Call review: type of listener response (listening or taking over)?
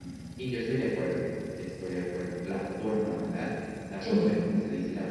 listening